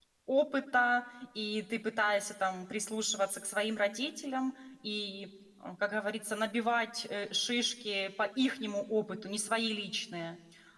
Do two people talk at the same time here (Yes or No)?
No